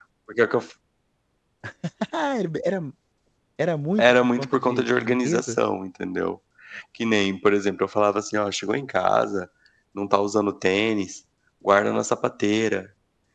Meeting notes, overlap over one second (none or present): present